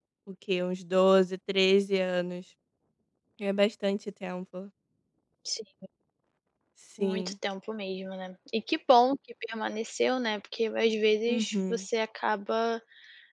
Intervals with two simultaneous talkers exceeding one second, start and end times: none

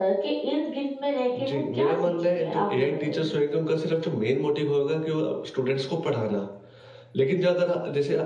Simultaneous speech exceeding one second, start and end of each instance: 1.3-3.3

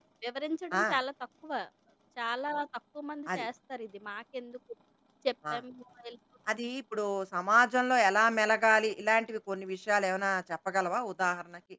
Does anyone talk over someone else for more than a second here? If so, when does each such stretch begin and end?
none

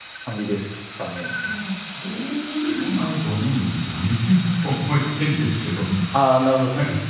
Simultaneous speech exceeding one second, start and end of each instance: none

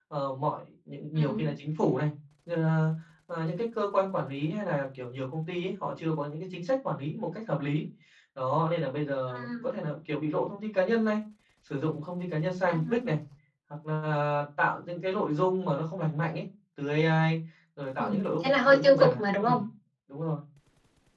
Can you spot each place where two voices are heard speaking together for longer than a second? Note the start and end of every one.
18.0-19.6

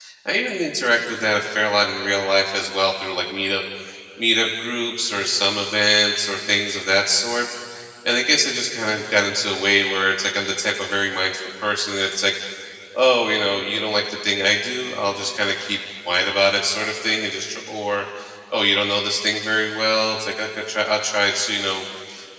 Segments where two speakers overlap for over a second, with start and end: none

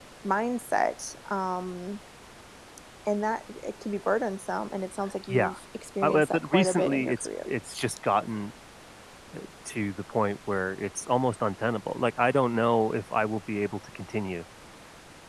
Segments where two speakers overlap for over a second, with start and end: 6.0-7.5

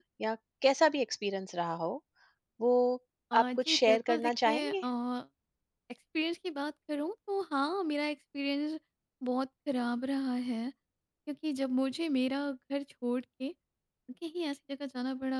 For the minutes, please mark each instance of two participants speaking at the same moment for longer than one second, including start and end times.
3.4-4.8

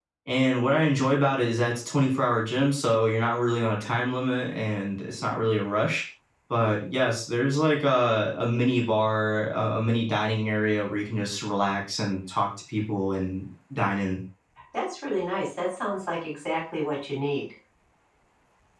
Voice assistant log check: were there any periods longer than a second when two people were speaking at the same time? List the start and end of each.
none

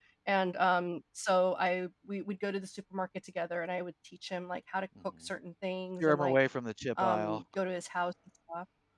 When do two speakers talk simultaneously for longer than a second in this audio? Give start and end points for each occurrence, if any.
none

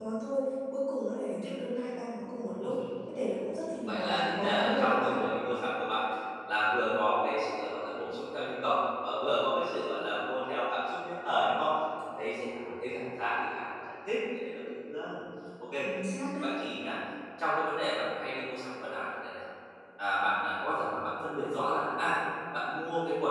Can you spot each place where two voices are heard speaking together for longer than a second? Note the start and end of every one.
3.8-5.2

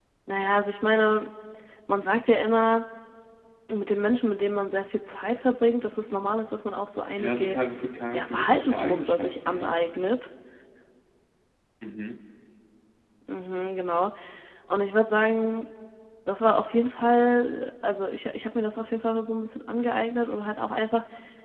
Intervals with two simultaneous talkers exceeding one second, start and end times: 8.1-9.8

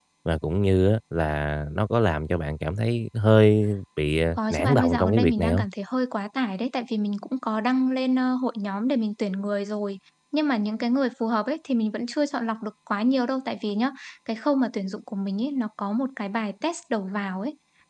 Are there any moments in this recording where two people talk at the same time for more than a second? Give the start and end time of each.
4.4-5.7

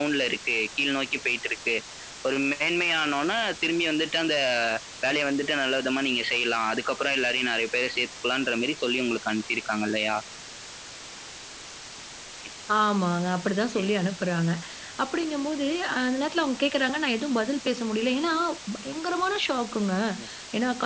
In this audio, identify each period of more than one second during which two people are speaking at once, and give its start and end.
none

